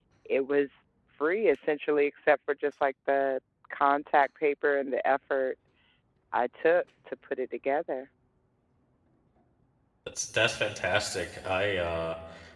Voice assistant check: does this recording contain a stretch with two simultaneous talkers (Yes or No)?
No